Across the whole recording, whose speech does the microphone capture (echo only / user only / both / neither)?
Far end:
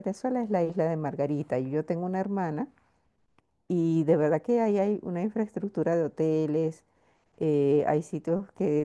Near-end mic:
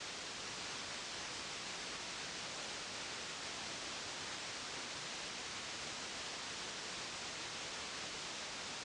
neither